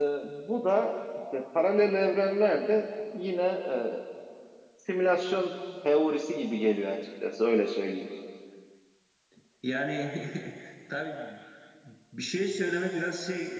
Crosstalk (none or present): none